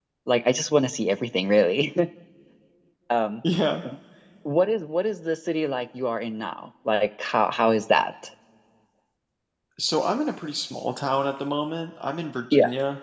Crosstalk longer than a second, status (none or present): none